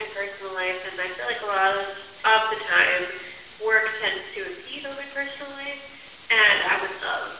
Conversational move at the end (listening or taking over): listening